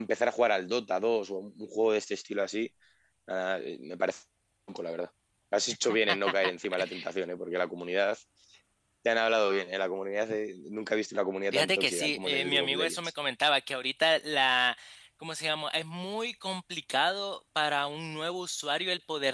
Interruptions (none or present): present